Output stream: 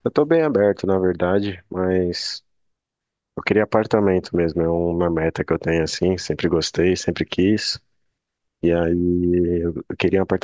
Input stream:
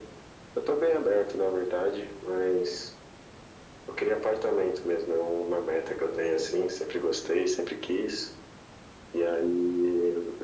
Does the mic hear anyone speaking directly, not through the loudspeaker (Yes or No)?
No